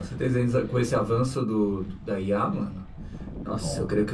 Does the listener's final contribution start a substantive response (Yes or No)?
No